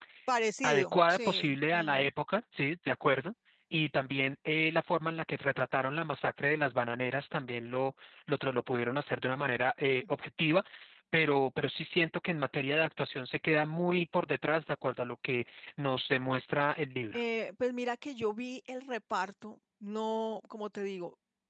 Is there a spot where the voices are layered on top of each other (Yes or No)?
Yes